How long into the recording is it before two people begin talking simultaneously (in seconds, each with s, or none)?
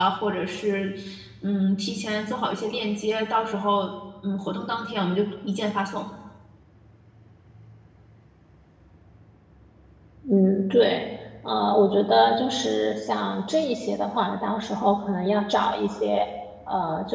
none